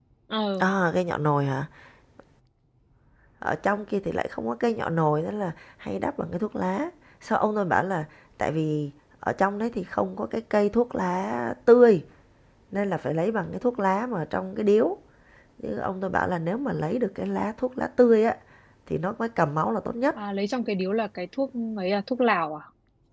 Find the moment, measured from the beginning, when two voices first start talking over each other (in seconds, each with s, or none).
none